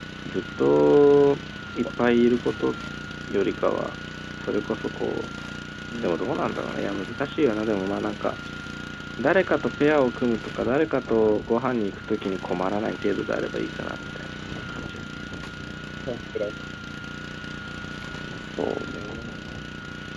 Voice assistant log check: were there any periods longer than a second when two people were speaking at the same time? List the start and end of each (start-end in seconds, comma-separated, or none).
none